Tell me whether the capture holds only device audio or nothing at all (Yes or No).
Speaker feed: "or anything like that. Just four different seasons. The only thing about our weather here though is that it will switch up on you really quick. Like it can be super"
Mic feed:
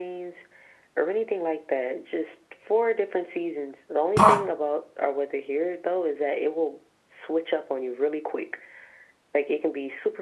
No